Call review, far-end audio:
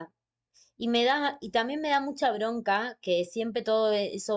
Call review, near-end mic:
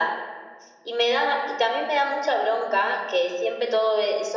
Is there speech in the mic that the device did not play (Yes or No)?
No